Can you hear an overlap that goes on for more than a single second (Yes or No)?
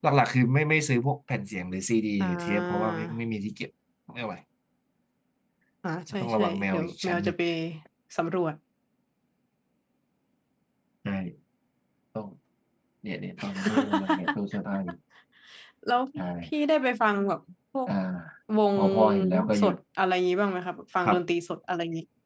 Yes